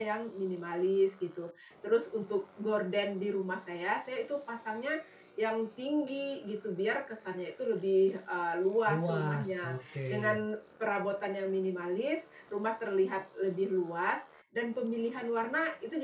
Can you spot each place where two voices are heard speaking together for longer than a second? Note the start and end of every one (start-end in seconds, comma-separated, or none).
8.9-10.4